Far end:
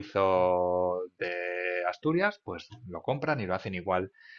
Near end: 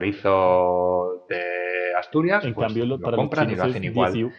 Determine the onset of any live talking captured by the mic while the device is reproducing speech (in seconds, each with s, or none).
2.4 s